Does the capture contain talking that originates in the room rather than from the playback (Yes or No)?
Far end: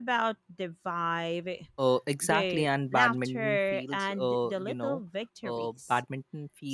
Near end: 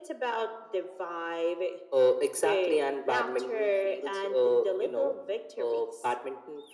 No